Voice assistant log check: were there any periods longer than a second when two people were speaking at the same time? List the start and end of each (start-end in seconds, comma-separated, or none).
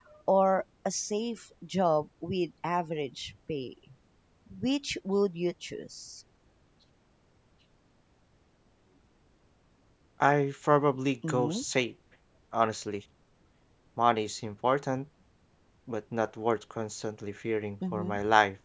none